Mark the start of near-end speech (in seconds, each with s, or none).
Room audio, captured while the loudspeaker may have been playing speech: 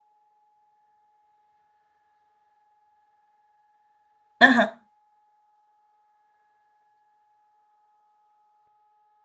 4.4 s